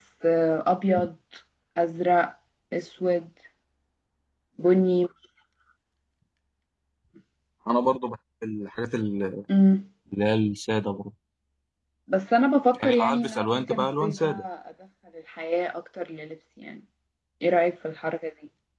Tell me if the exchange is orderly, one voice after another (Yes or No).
No